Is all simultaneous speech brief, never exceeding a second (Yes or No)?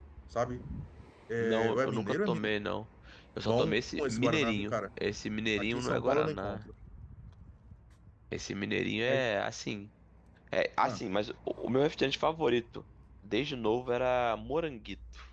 No